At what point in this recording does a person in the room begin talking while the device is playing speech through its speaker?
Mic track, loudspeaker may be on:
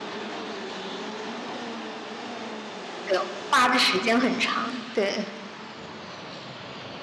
3.0 s

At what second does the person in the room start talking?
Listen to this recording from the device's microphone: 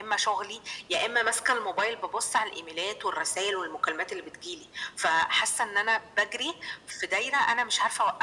none

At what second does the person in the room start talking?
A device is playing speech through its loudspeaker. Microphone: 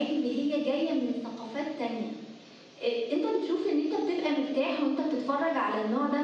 none

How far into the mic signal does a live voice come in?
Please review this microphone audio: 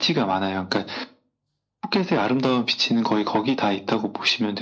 none

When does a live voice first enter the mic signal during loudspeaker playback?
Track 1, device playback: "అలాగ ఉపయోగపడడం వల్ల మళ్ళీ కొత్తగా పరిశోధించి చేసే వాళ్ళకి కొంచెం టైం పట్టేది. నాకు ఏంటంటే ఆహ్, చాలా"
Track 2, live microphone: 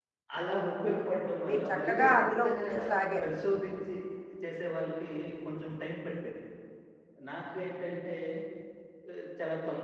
1.5 s

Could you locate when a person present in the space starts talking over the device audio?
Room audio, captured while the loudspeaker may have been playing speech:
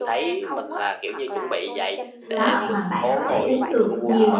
2.3 s

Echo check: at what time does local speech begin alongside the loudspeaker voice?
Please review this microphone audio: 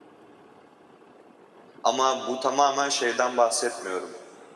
1.8 s

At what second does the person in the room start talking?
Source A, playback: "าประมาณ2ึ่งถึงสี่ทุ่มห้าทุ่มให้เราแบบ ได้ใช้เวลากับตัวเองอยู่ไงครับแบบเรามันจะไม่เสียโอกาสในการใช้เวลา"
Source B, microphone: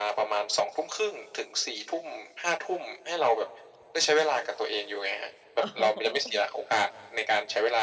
5.6 s

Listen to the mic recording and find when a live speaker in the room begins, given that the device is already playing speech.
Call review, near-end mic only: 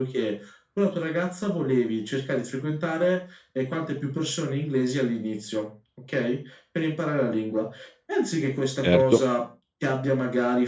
8.8 s

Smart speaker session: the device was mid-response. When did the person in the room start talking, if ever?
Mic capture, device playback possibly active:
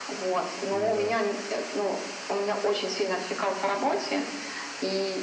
0.7 s

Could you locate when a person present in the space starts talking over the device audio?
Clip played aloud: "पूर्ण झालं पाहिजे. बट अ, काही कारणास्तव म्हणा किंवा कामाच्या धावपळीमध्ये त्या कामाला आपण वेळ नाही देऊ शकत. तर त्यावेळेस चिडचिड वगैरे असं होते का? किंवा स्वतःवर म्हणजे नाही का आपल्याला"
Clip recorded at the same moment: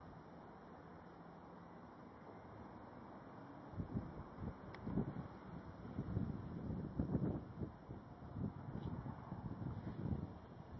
none

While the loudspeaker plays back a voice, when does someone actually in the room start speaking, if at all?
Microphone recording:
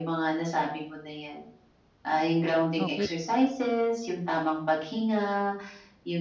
2.8 s

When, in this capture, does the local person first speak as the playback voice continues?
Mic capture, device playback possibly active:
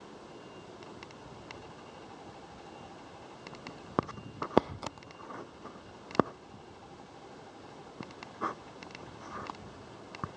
none

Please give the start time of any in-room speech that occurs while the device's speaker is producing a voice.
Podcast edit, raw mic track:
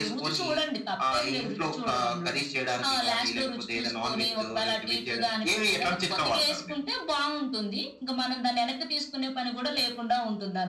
none

